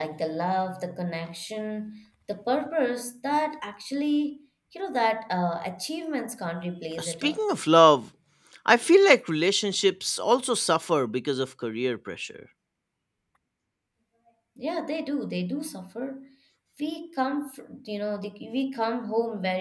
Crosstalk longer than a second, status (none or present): none